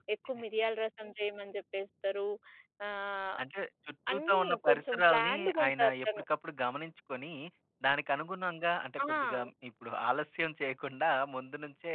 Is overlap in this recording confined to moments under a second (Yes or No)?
No